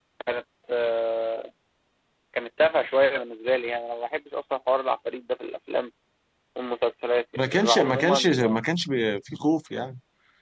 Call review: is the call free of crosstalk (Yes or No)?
No